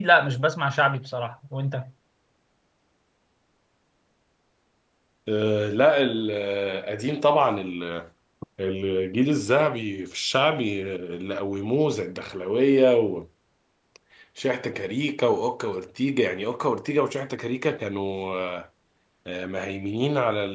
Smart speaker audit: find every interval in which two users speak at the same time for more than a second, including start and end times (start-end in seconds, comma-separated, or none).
none